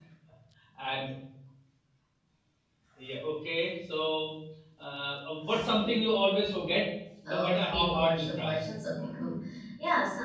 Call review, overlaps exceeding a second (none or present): present